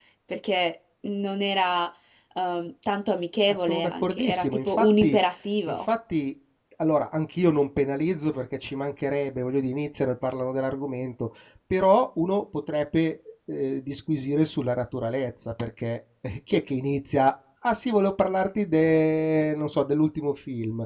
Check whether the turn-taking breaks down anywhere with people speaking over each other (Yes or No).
Yes